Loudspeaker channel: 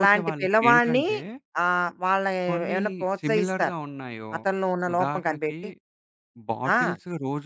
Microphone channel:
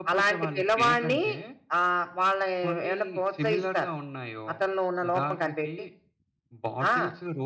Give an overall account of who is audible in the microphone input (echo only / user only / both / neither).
echo only